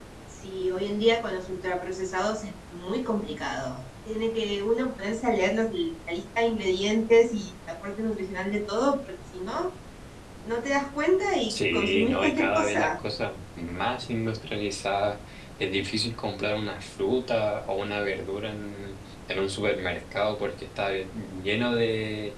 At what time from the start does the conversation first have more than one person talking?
11.5 s

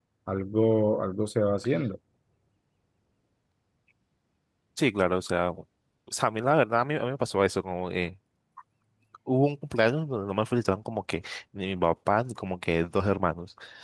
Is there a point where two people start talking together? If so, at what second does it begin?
none

